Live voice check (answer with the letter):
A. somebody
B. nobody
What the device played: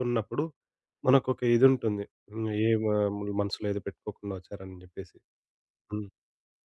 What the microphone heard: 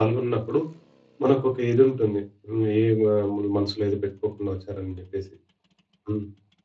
B